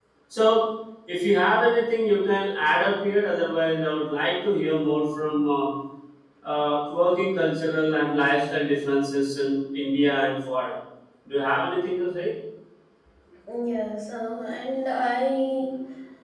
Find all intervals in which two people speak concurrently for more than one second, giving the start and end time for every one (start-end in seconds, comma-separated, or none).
none